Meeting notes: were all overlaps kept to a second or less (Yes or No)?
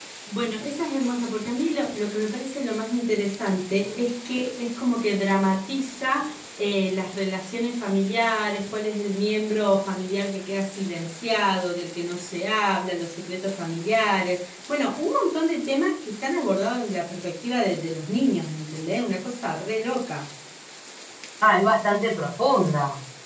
Yes